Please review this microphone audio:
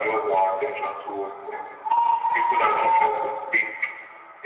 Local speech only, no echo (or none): none